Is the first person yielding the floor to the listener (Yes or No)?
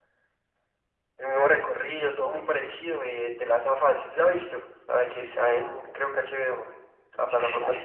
Yes